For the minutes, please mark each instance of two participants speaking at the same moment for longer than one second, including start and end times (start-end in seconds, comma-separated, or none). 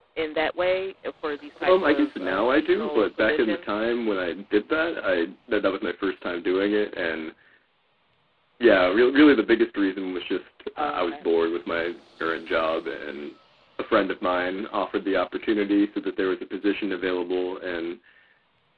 1.6-3.6